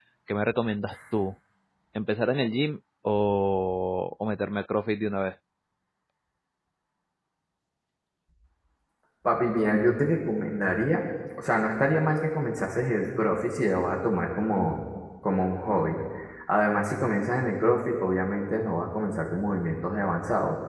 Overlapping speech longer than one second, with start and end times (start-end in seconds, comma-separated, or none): none